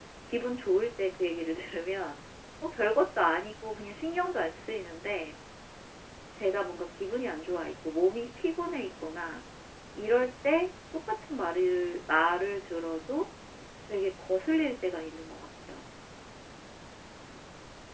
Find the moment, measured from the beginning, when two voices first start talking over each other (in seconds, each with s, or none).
none